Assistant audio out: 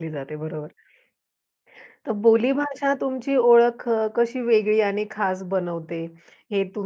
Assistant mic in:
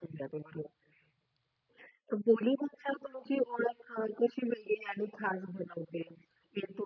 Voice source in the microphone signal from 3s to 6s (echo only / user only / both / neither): echo only